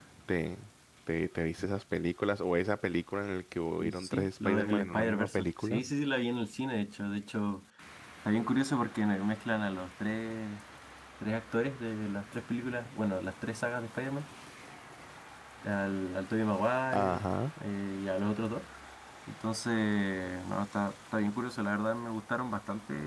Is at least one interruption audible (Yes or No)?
Yes